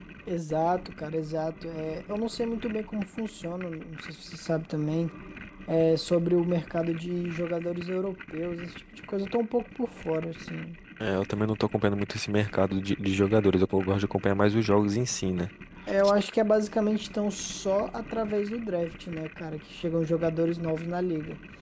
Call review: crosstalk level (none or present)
none